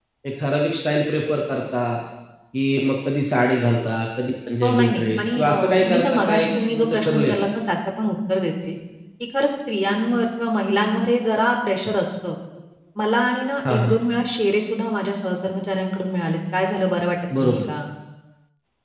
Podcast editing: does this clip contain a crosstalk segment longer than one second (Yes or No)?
Yes